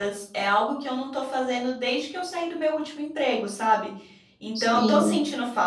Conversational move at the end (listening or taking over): listening